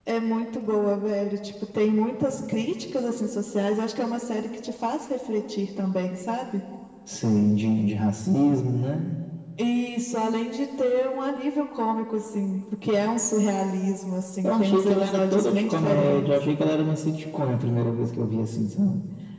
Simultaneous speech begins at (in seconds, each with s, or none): 14.4 s